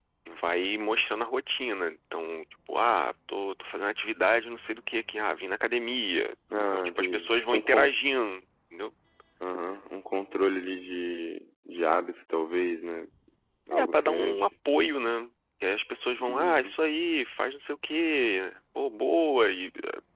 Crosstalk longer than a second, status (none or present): present